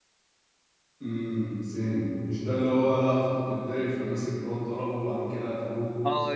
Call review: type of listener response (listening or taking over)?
taking over